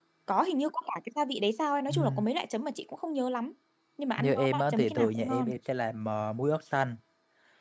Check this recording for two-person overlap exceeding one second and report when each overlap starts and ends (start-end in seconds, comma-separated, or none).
4.2-5.5